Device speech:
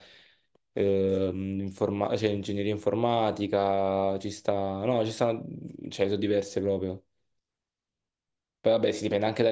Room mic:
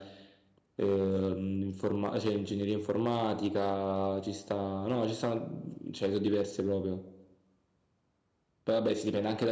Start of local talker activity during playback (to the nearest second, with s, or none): none